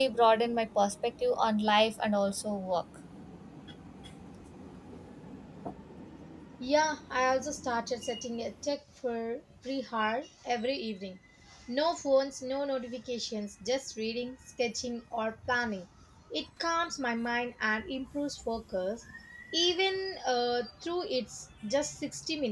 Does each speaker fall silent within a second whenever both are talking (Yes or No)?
Yes